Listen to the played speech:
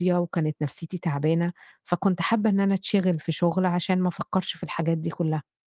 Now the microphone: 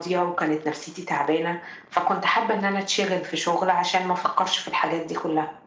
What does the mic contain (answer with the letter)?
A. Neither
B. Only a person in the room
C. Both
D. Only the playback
D